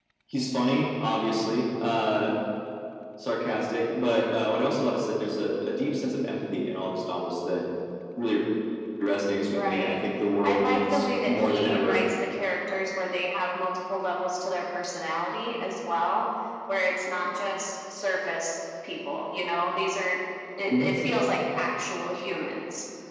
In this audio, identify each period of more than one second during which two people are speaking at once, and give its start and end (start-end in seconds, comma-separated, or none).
10.4-12.0